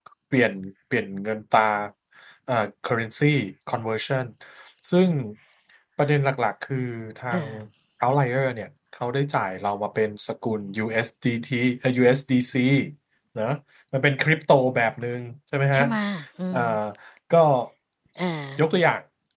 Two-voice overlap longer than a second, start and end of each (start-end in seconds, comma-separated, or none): none